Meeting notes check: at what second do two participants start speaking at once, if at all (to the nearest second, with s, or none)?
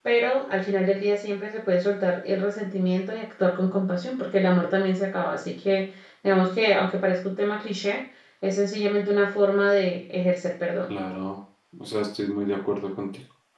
none